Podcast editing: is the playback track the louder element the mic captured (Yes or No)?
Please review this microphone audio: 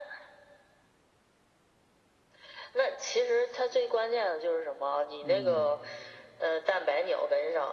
Yes